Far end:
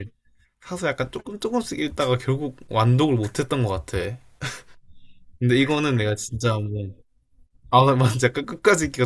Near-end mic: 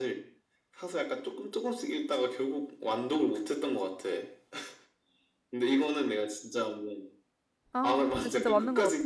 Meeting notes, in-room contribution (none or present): present